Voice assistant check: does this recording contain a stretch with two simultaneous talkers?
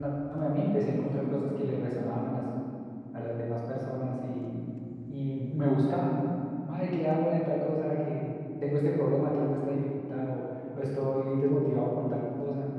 No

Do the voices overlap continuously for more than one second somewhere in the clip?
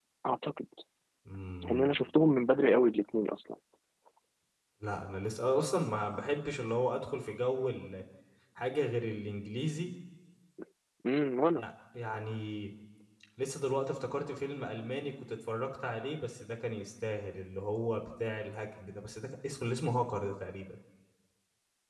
No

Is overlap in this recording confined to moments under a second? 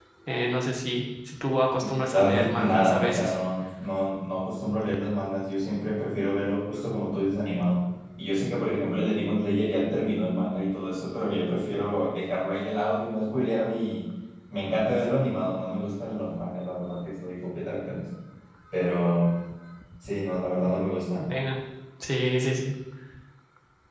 No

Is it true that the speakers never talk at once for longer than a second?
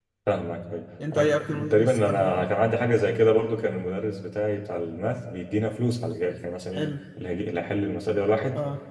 No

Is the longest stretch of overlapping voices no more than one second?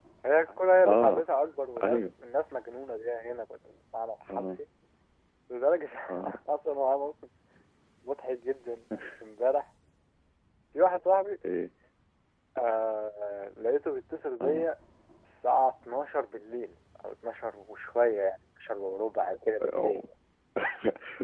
Yes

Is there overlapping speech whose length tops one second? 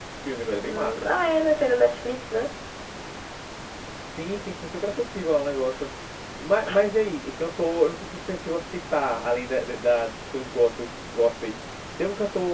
No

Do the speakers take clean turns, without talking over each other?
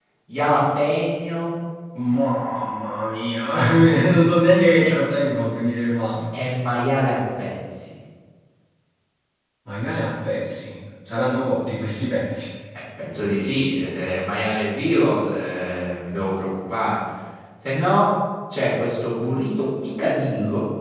Yes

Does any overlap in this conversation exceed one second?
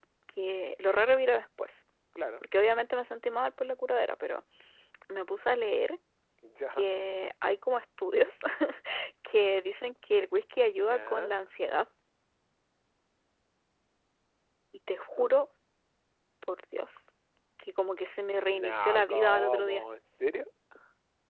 Yes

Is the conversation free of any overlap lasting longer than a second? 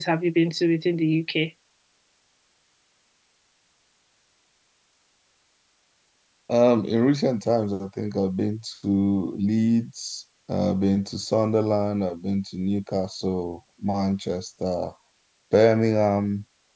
Yes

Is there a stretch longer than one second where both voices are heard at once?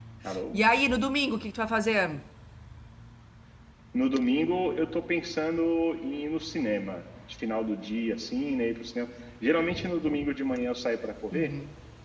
No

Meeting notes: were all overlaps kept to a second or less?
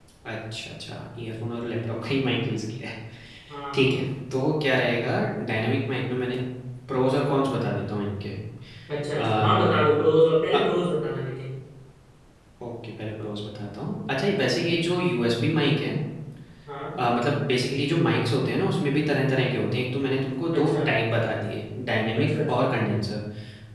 Yes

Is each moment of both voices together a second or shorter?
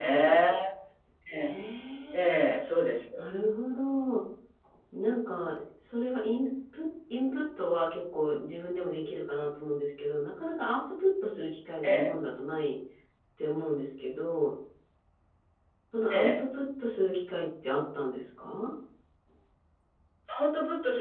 Yes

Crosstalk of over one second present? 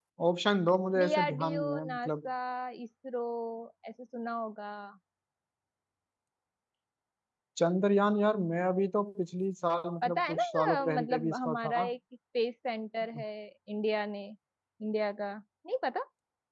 Yes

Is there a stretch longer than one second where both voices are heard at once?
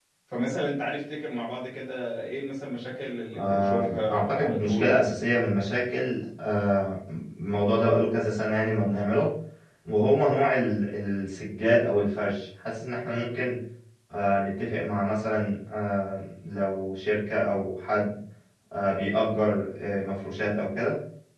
Yes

